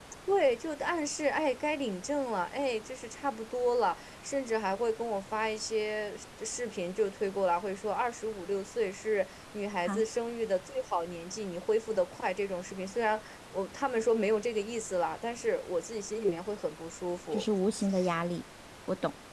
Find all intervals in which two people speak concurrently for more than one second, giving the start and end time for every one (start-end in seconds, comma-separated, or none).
none